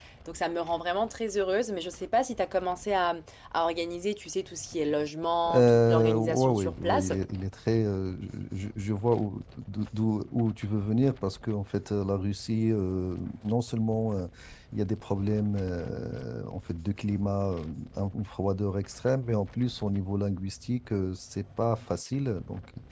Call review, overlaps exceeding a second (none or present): present